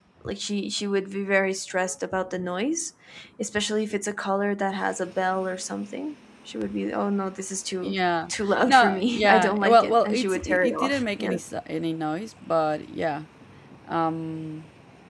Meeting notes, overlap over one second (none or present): present